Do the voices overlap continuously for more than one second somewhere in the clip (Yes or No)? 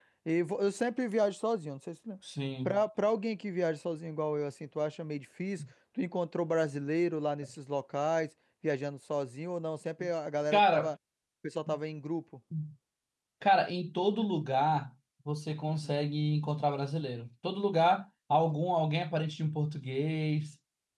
No